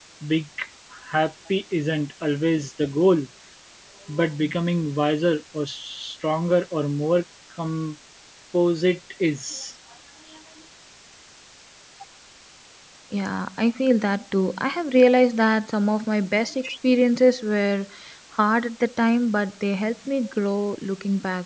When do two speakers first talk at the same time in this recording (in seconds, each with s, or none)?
none